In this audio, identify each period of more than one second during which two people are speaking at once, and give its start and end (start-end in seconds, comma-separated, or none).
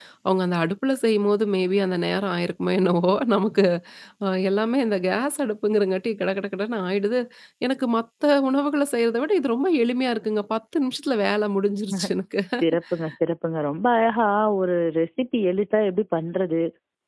none